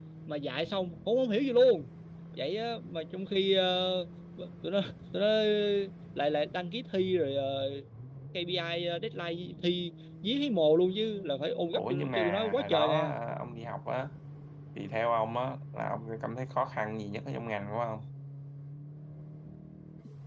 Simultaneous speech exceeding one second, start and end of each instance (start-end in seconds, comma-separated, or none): 11.7-13.1